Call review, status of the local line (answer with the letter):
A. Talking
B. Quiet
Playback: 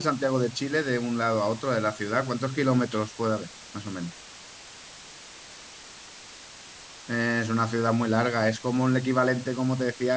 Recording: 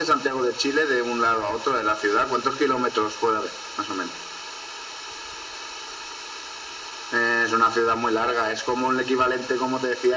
B